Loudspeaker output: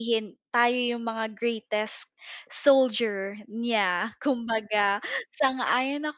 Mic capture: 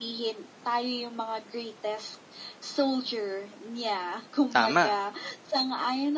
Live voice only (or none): Tama.